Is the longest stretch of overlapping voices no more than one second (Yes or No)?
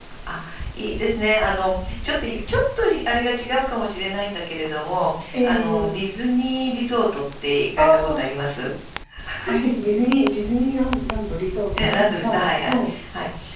No